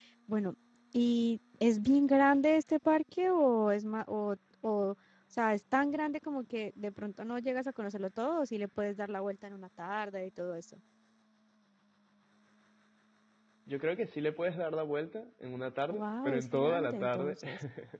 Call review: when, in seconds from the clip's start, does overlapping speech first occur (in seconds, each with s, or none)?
15.9 s